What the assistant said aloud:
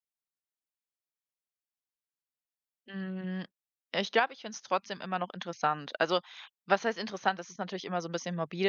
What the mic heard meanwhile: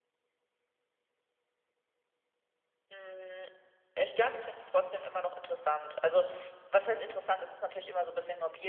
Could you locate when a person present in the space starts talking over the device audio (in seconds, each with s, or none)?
none